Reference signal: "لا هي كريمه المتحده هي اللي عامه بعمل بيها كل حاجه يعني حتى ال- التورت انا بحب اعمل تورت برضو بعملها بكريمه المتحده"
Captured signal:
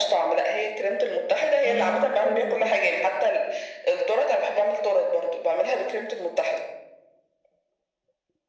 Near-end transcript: امم حلو ده

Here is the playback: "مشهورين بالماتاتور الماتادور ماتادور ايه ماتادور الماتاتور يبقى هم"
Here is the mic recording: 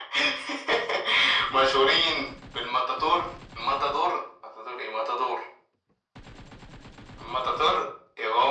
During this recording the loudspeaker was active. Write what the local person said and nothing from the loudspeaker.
none

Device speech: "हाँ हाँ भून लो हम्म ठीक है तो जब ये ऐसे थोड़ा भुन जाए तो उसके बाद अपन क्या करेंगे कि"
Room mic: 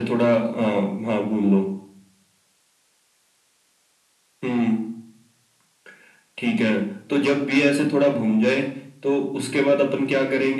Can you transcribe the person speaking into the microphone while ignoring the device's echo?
none

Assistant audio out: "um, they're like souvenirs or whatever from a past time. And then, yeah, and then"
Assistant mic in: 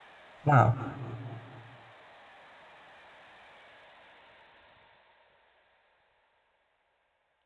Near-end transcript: Wow.

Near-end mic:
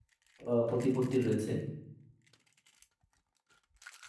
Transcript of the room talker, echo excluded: আহ, প্রতিপত্তি রয়েছে

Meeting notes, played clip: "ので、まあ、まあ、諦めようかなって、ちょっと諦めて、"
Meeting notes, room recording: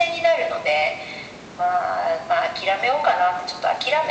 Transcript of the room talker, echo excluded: none

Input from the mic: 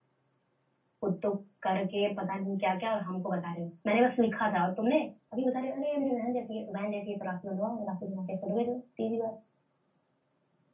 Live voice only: खुद तो करके पता नहीं क्या क्या और हमको बता रहे हो मैंने बस लिखा था और तुमने अभी बता रहे हो अरे मेरी बहन जैसी है तो बहन जैसी है तो राखी बनवाओ राखी बनवा के फोटो भेजो सीधी बात

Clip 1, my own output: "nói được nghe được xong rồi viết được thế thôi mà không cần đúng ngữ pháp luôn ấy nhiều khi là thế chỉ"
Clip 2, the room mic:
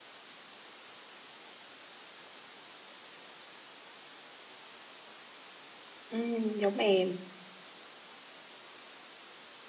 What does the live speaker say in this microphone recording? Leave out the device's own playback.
ừ, giống em

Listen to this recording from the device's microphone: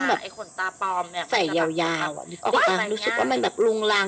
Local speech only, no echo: What?

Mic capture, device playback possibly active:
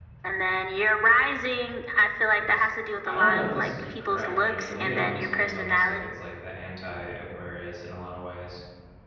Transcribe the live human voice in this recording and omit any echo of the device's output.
it's for, I don't know if this is correct, but for me it almost feels almost like it's like the anti-Aquarius in a lot of ways.

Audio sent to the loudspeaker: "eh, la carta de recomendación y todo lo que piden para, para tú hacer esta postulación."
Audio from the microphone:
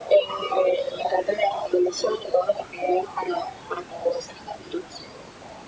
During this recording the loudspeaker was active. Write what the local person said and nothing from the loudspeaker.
none

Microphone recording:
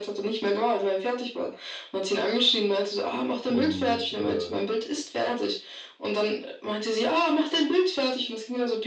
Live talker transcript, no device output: Und äh,

